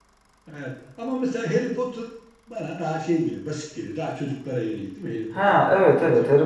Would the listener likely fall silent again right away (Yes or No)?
No